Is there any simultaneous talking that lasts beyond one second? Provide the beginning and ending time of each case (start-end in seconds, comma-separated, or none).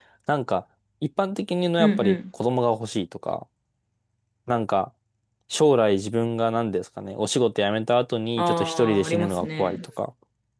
8.4-9.8